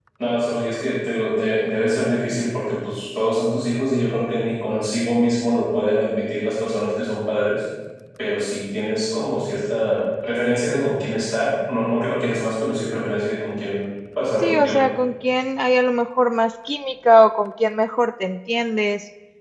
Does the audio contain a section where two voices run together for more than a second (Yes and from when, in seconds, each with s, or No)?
No